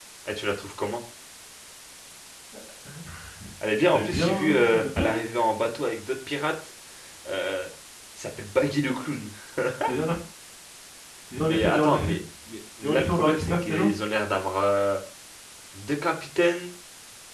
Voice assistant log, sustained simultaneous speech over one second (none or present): present